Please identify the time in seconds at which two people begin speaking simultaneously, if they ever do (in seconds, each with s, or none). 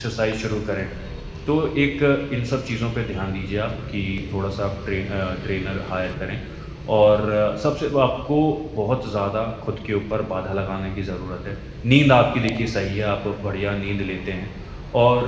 none